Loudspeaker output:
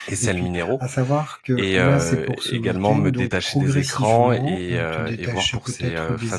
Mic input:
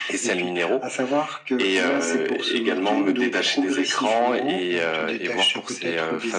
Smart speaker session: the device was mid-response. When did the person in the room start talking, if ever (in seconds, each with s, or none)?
none